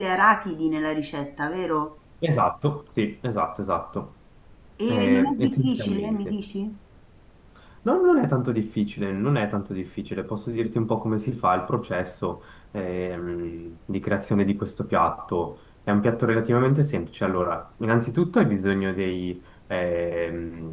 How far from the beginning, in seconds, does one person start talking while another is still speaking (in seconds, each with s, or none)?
4.9 s